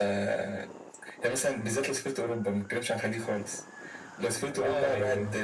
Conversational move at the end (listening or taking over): listening